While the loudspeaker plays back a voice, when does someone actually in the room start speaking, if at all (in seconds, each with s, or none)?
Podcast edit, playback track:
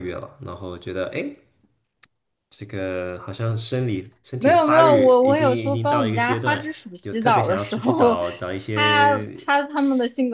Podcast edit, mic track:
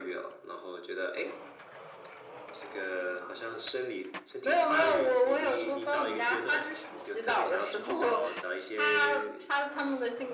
none